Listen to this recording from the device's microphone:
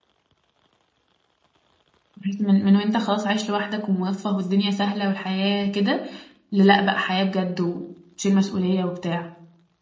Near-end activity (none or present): present